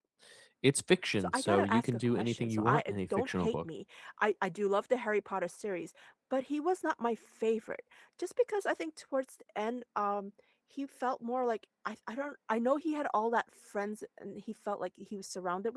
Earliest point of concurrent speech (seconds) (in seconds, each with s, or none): 1.2 s